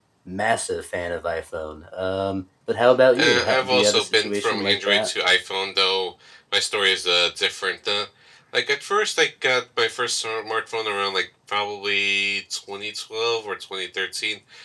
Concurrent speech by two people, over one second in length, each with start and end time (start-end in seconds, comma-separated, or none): 3.2-5.1